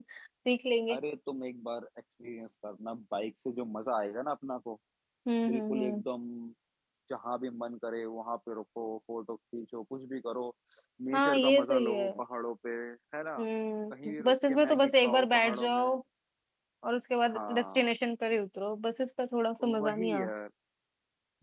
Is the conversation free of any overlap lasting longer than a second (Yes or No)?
No